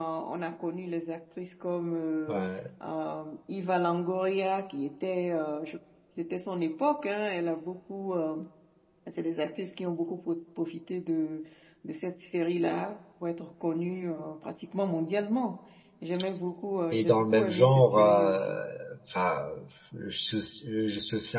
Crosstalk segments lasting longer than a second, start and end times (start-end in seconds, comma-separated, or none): 16.9-18.6